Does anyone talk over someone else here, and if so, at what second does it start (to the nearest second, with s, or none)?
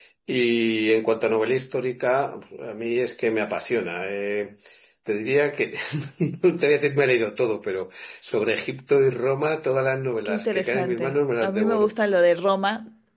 10 s